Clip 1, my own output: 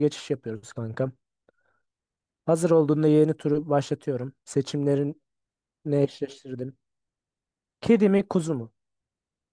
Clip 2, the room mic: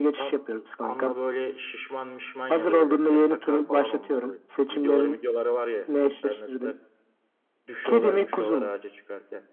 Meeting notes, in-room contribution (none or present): present